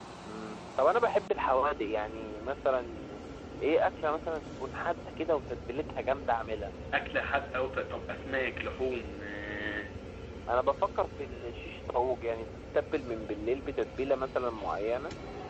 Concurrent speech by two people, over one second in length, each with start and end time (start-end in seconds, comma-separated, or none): none